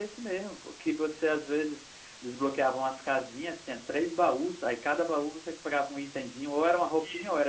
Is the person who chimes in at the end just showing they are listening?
Yes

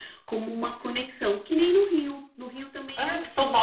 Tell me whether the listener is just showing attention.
No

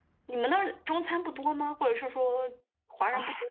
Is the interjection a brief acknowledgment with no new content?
No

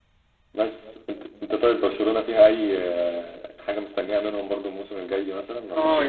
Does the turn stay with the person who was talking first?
No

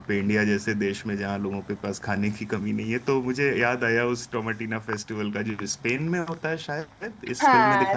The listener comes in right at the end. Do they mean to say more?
Yes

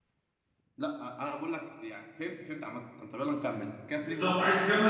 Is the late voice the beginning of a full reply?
Yes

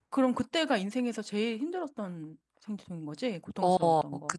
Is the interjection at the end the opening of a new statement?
Yes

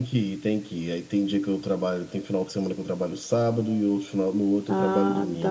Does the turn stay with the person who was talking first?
No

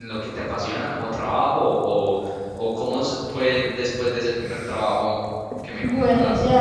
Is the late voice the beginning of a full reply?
Yes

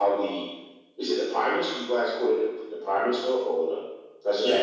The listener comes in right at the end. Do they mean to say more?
Yes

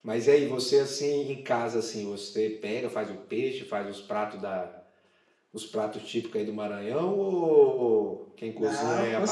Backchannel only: No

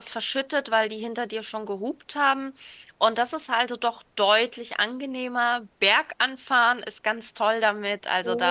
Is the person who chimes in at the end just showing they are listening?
No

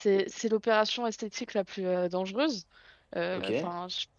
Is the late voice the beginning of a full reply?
No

